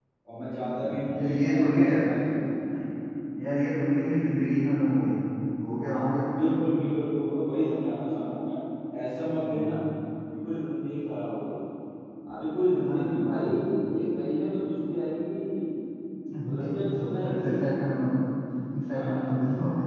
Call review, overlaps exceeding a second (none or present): present